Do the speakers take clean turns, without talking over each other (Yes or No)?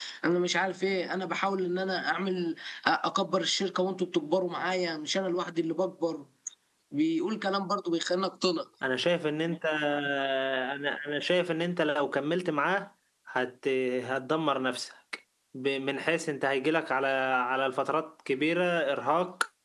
Yes